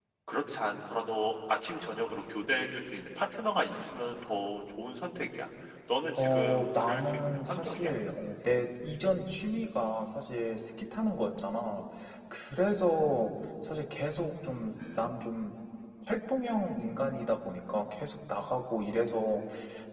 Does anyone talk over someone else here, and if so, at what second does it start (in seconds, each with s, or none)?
6.2 s